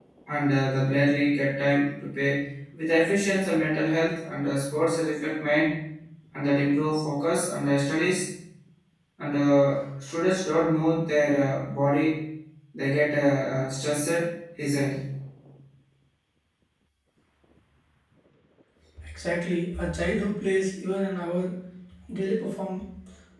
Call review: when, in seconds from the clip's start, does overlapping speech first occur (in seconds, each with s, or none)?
none